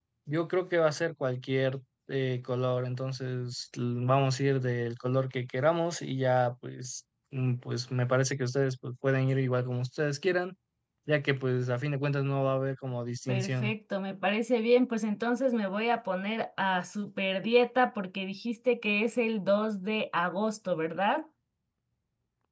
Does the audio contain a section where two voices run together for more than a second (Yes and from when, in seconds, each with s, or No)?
No